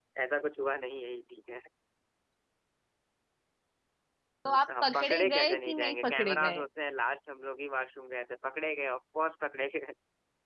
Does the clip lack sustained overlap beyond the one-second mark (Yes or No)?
No